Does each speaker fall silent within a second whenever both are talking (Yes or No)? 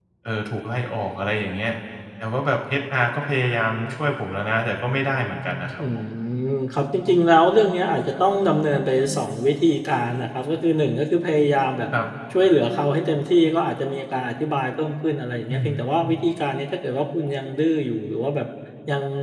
Yes